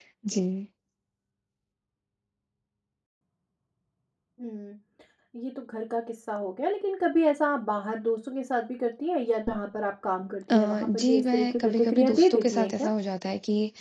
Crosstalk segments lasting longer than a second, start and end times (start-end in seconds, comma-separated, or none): 10.5-12.9